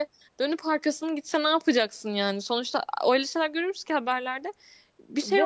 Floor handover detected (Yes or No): Yes